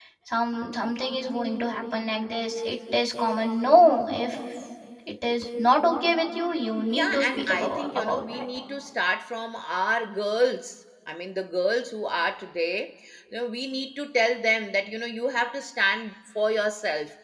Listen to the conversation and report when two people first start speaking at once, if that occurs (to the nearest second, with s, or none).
7 s